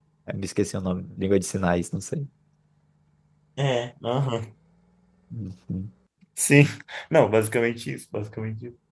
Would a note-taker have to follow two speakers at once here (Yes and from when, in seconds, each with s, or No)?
No